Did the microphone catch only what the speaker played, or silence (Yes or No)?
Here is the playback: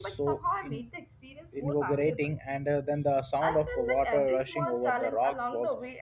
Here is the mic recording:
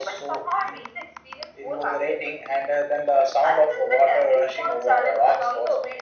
Yes